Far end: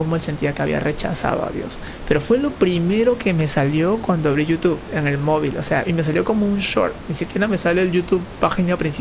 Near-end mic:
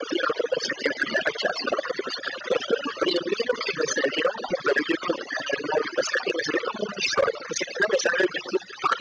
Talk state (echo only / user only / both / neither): echo only